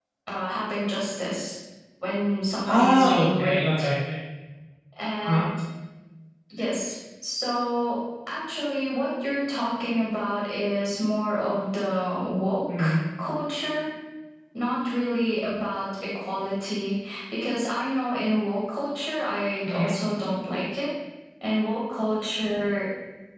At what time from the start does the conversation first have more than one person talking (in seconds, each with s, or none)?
2.6 s